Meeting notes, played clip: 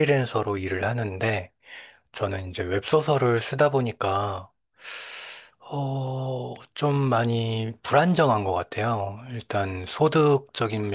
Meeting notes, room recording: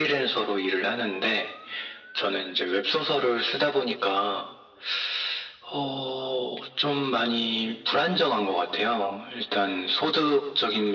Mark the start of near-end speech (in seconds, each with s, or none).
none